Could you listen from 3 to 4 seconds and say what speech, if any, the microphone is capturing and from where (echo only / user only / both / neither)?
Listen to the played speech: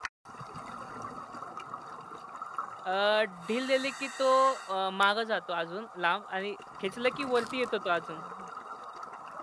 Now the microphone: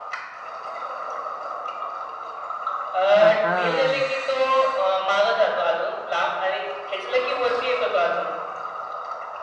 both